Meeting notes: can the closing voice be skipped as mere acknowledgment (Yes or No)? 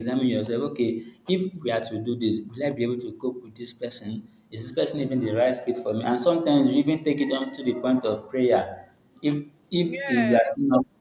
Yes